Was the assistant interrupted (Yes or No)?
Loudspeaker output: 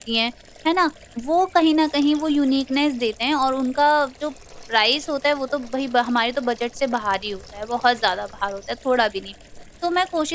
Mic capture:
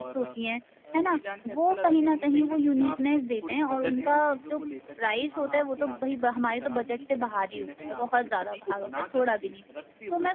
Yes